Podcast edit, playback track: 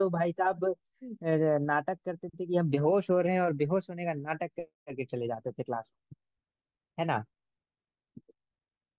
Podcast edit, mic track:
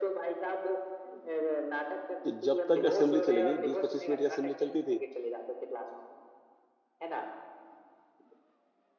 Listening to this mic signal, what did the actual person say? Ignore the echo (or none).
तो जब तक असेंबली चलेगी बीस पच्चीस मिनट की असेंबली चलती थी